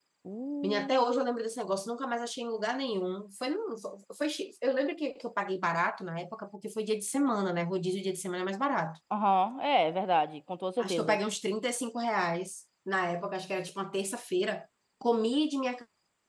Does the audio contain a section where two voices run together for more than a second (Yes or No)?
No